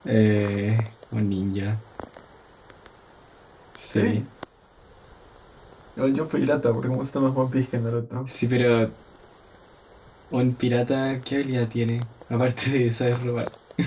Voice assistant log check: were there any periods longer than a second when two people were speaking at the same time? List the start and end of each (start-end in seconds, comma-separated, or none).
none